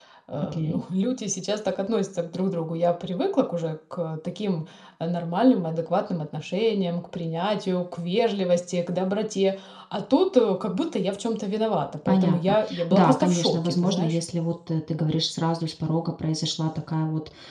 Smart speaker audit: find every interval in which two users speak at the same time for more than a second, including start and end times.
12.1-14.2

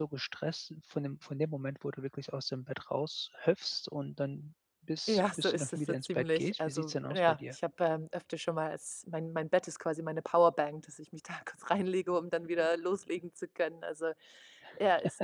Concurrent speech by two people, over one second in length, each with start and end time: 5.1-7.6

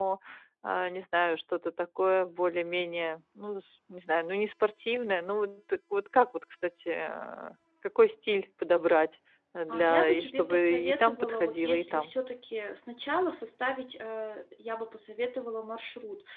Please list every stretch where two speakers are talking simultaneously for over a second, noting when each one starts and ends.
9.7-12.1

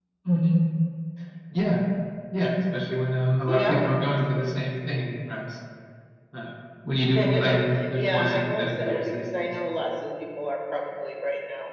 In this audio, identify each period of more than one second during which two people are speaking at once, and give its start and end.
8.0-9.5

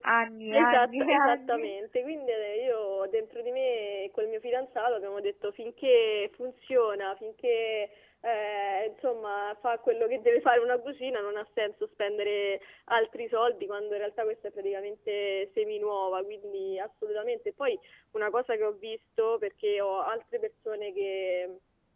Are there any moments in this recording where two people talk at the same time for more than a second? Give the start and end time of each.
0.5-1.7

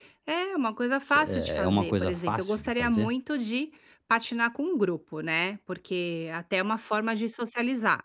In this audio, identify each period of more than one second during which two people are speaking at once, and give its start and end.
1.1-3.1

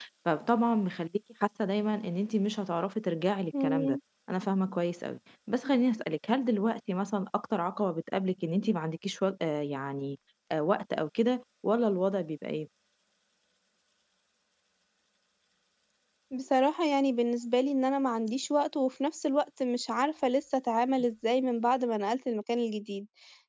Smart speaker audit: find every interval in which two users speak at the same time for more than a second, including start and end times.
none

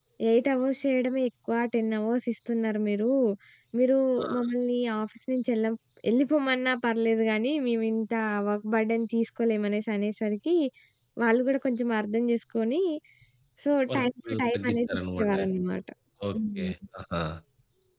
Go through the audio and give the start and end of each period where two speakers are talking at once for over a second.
13.9-15.5

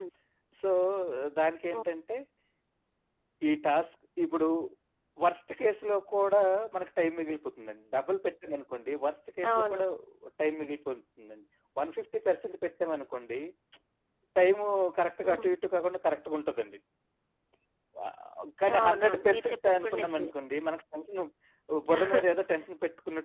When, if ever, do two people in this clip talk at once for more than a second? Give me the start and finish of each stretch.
18.8-20.3

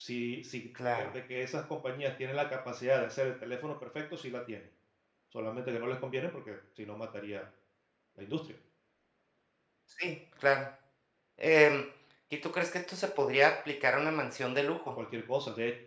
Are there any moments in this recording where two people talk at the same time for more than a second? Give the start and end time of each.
none

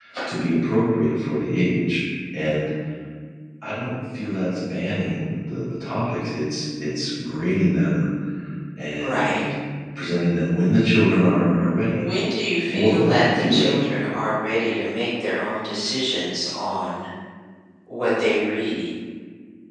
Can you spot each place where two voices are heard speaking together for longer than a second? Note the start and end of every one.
12.7-14.0

